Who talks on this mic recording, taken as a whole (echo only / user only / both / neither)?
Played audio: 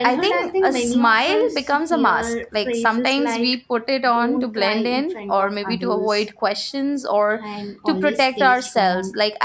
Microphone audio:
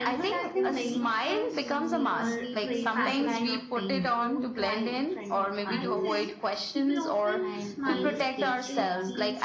both